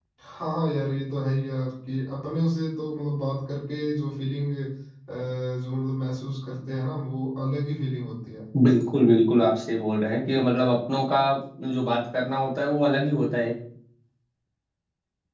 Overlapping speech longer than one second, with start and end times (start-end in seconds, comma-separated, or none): none